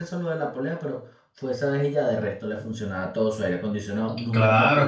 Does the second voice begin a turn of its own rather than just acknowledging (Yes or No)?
Yes